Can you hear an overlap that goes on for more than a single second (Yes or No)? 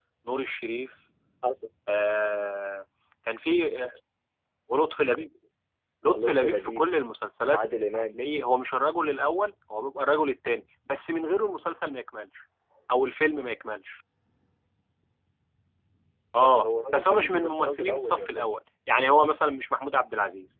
Yes